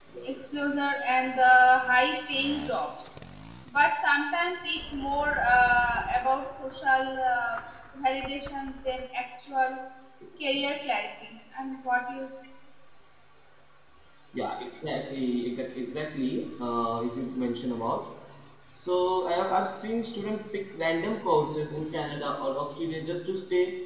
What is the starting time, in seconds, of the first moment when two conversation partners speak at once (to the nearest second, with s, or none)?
none